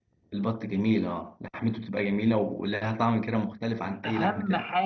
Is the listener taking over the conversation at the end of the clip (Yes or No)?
Yes